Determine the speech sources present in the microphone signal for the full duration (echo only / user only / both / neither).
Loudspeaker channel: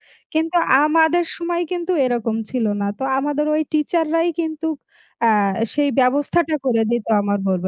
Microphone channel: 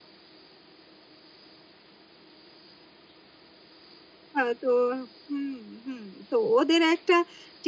user only